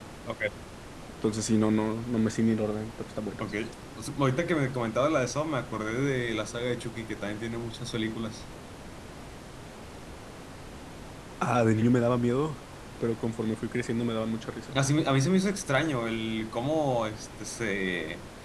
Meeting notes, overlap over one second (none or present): none